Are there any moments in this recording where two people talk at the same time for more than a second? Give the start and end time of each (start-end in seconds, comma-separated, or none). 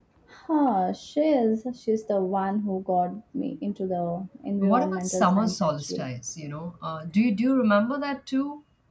4.6-6.1